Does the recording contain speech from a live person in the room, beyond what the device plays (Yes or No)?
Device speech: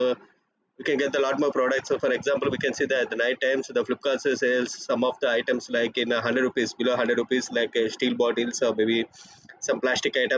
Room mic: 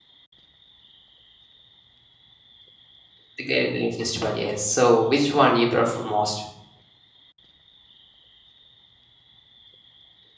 Yes